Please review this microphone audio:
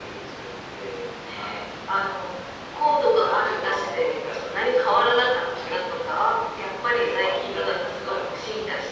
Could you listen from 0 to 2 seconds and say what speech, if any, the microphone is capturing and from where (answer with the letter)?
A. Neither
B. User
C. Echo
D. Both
C